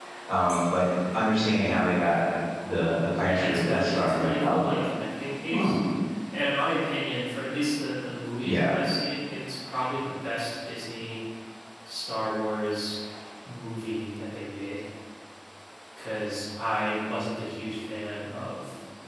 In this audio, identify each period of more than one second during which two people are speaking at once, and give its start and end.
3.2-4.7

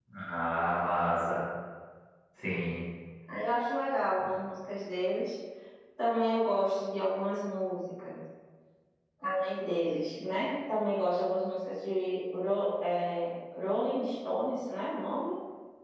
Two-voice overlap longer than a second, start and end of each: none

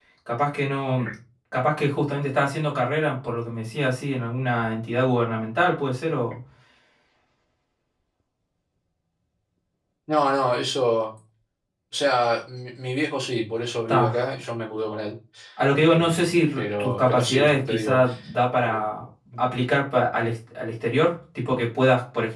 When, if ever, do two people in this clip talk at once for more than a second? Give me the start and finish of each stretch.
16.6-18.0

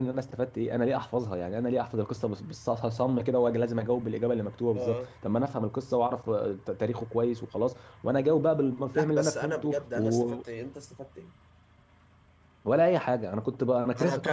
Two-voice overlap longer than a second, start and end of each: 8.9-10.4

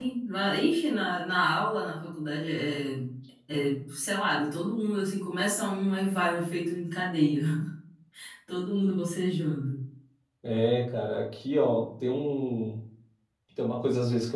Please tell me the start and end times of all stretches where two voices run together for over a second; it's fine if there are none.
none

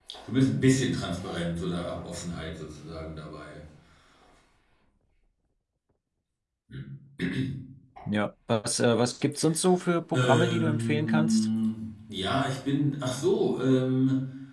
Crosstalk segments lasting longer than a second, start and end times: 10.1-11.5

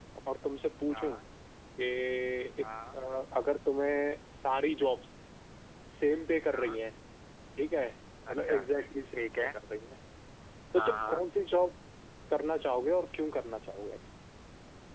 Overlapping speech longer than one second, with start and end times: none

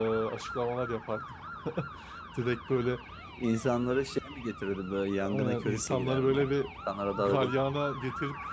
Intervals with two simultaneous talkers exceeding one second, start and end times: 5.2-6.5

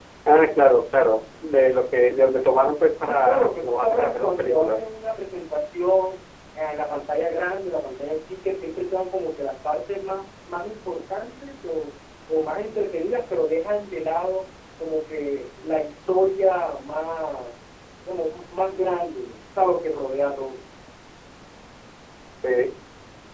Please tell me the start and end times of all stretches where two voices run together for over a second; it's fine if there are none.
3.0-4.8

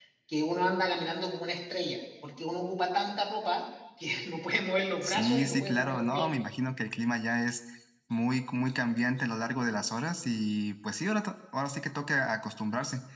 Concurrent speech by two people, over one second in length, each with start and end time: 5.0-6.3

